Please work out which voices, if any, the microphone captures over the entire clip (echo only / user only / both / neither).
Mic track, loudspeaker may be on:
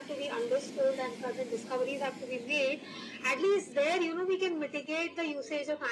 echo only